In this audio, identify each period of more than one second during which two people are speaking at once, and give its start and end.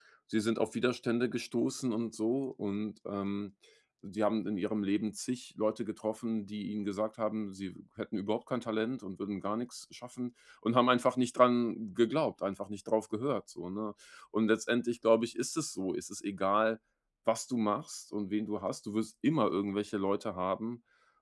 none

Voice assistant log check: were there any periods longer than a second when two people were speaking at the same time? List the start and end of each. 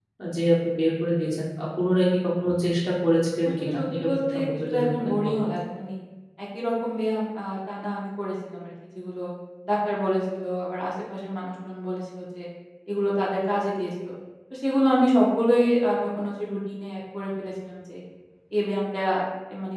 3.5-5.3

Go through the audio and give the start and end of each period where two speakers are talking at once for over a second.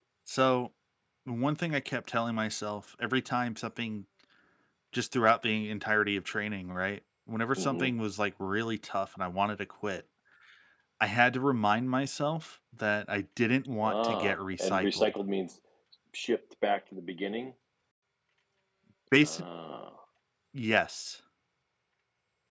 13.8-15.1

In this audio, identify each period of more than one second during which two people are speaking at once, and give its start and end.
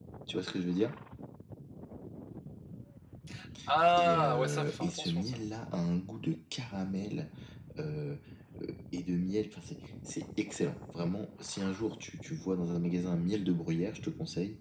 4.0-5.3

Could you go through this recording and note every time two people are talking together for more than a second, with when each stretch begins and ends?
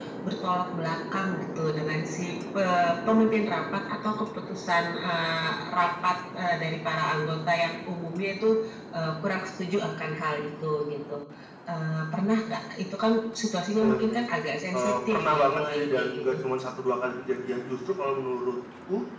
14.7-16.4

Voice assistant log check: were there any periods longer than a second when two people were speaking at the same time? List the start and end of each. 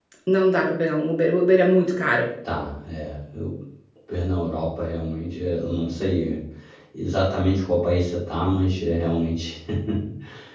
none

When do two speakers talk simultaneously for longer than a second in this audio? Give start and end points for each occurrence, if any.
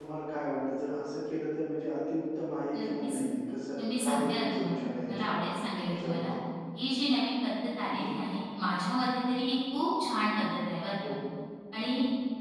3.8-5.4

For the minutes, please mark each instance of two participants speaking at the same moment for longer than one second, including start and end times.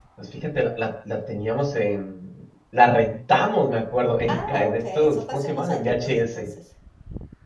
4.2-6.5

